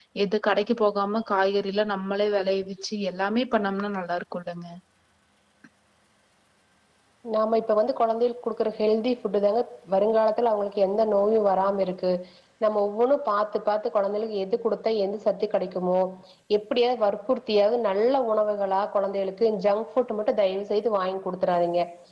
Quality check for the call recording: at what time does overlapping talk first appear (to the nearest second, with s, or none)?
none